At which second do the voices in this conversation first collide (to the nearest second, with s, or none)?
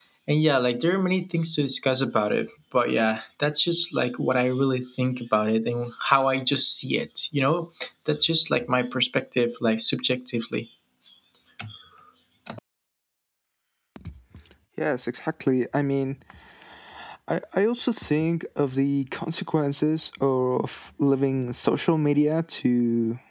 none